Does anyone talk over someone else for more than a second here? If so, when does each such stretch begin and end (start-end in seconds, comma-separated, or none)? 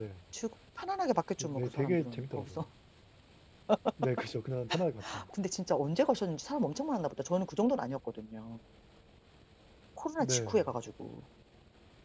1.4-2.6